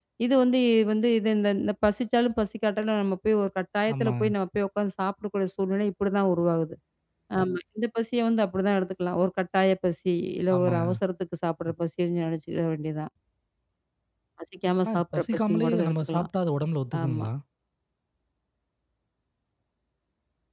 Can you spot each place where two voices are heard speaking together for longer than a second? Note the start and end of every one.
14.8-16.3

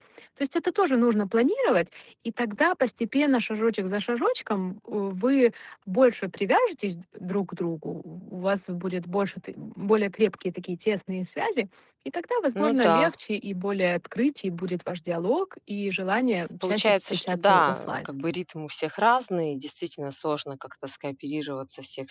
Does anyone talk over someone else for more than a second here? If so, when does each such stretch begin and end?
16.6-18.1

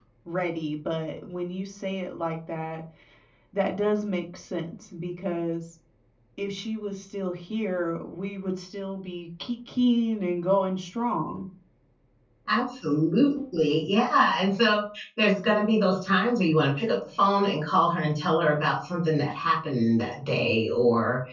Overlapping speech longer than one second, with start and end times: none

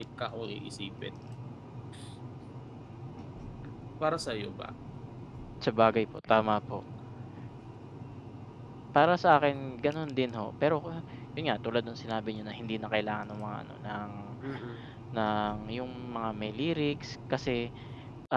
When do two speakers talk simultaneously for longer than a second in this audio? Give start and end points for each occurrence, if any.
none

